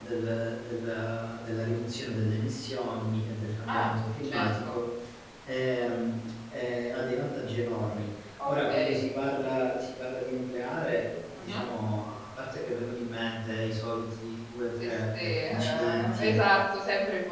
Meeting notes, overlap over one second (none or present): present